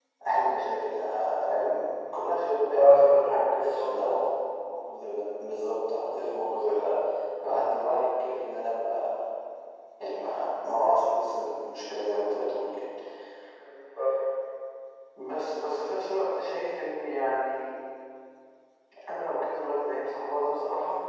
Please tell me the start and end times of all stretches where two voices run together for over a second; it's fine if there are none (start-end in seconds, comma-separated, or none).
2.8-4.1